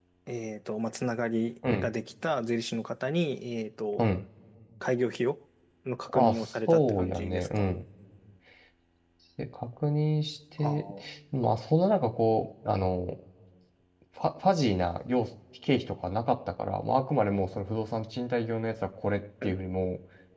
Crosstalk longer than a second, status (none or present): present